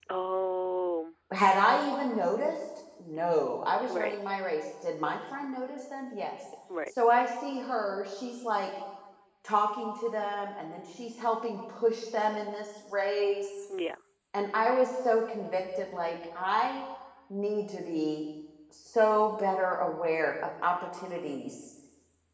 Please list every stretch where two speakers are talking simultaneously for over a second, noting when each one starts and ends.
none

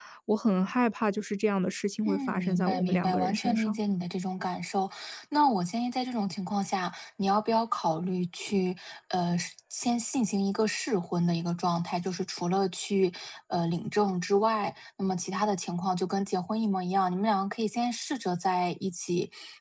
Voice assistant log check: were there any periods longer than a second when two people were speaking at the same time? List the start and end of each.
2.1-3.8

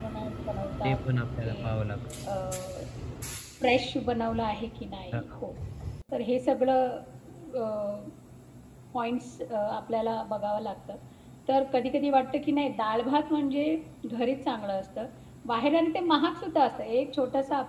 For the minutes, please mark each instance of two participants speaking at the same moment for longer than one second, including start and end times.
none

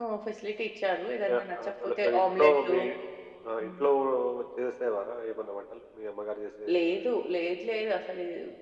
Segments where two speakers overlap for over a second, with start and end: 1.3-2.8

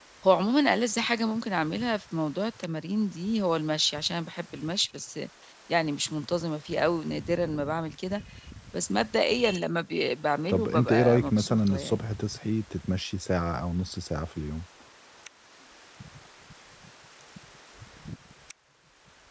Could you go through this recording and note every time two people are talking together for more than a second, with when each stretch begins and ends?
10.5-12.0

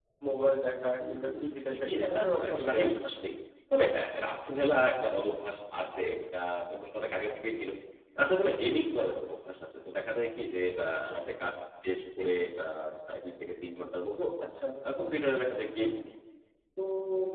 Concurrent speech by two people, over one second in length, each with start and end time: 1.7-3.0

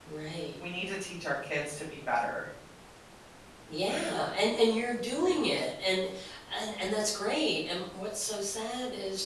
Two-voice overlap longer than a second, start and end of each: none

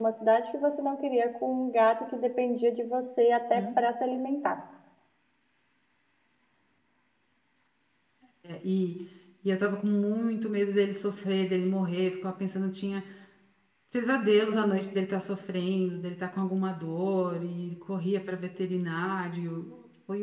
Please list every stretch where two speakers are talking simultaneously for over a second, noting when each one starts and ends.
none

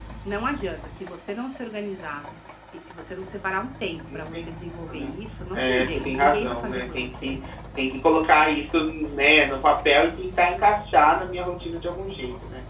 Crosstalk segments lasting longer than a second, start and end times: 5.5-7.3

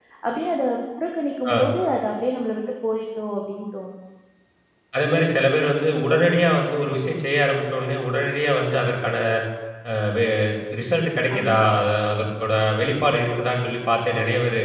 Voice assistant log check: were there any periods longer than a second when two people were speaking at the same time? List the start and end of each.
none

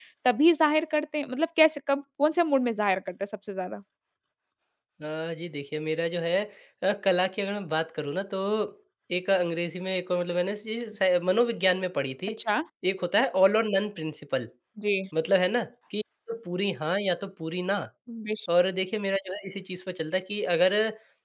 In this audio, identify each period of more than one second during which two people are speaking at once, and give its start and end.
none

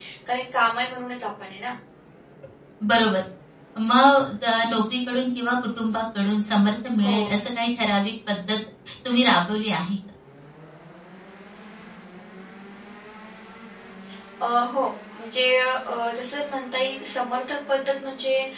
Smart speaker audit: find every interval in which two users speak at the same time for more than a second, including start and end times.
none

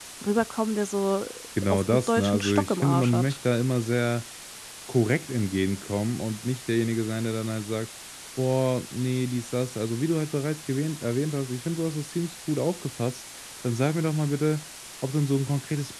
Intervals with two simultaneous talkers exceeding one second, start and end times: 1.7-3.4

